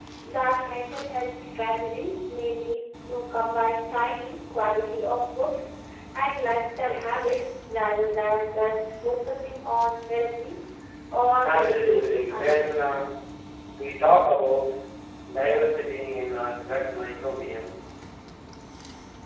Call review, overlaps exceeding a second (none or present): present